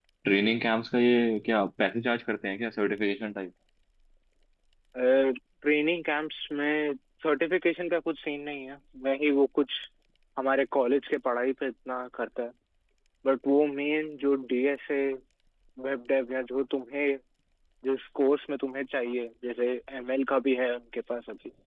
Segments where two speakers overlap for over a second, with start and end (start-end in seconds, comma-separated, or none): none